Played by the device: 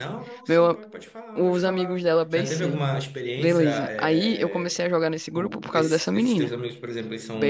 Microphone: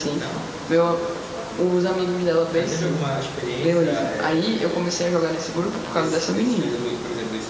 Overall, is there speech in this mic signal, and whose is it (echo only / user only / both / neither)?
echo only